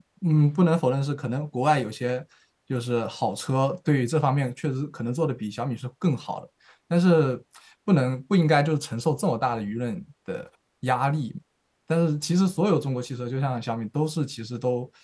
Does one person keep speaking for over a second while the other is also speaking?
No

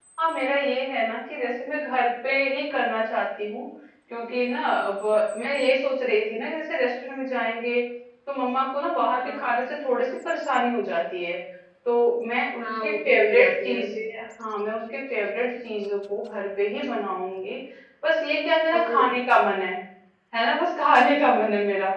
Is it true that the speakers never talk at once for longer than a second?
No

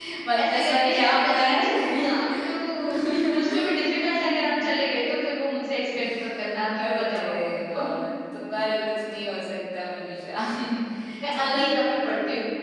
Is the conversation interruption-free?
No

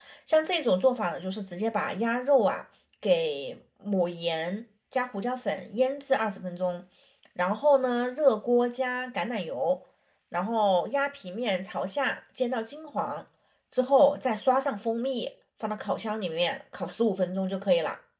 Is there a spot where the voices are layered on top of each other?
No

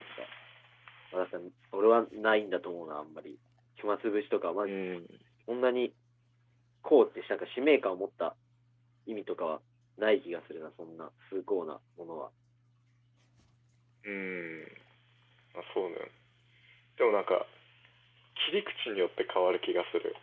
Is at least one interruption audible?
No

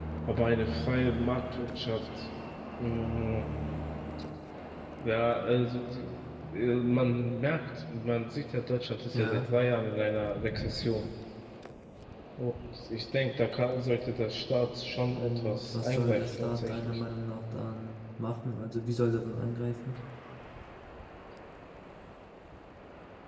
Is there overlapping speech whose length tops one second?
Yes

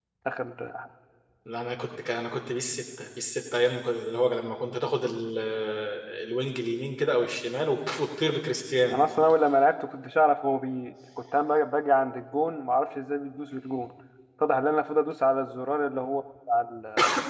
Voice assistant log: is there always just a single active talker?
Yes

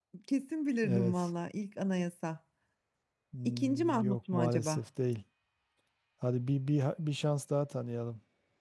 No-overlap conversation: No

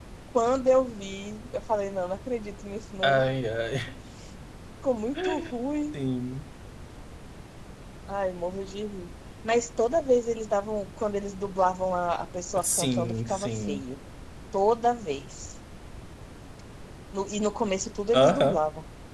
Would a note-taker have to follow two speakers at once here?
Yes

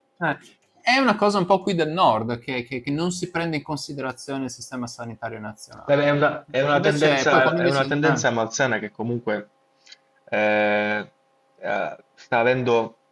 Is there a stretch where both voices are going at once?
Yes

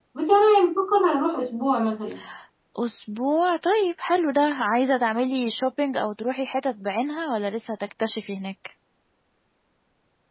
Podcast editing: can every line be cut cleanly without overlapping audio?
Yes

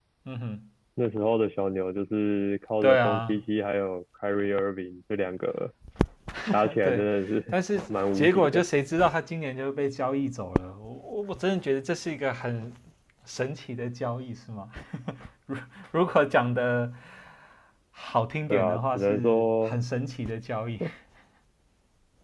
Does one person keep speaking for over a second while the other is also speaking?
Yes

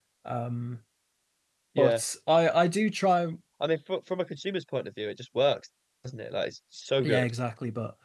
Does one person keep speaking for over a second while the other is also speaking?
No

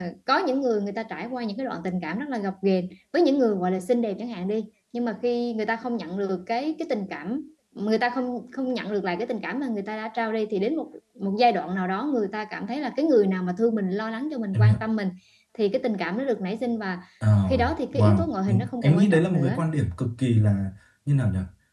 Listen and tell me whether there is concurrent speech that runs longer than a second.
Yes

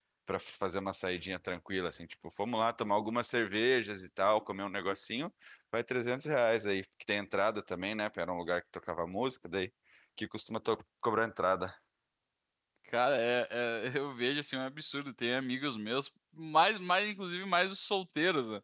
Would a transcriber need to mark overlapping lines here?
No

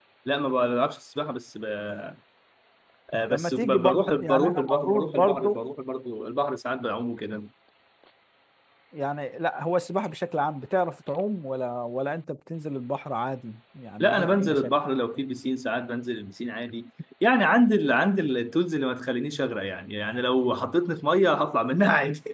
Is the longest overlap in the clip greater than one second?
Yes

